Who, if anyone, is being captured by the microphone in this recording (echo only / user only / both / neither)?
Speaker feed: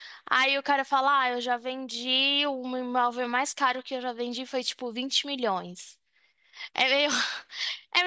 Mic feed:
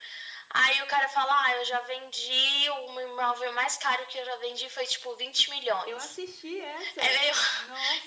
both